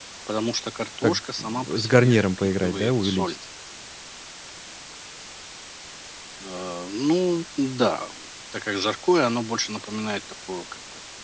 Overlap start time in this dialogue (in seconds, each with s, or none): 1.0 s